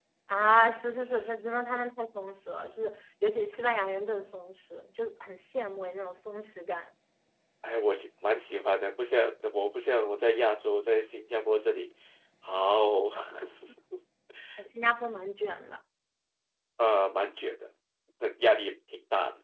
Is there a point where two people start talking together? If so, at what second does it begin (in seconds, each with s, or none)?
none